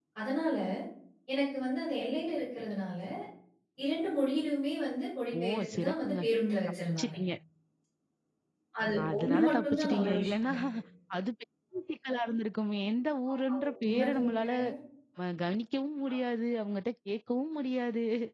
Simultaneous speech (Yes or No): Yes